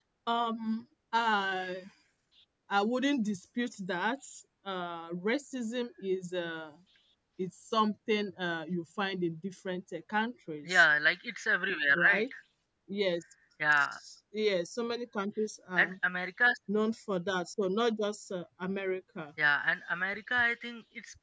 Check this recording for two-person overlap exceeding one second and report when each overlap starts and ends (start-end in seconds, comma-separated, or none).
none